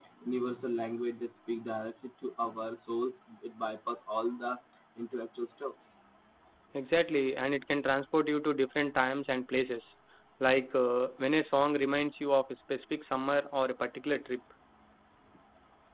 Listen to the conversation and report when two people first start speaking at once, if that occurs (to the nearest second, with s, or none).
none